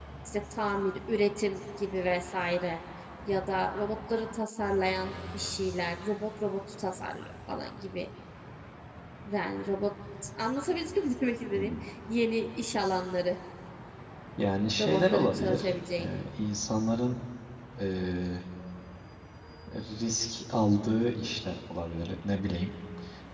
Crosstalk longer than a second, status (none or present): present